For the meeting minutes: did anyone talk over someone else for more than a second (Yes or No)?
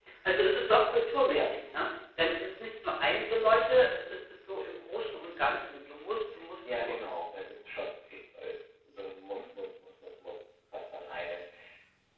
No